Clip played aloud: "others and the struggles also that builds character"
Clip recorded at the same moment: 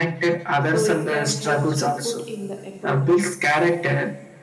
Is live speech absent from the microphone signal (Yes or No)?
No